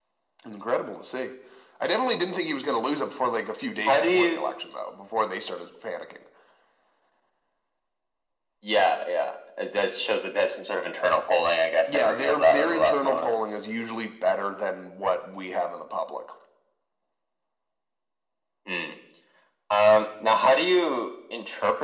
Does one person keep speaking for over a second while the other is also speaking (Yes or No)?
Yes